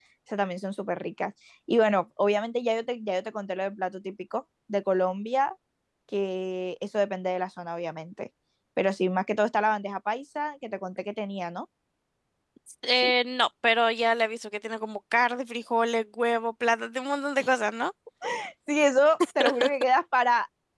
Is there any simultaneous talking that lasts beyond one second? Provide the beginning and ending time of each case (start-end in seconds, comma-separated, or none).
none